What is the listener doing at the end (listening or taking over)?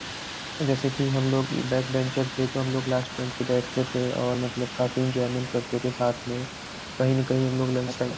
listening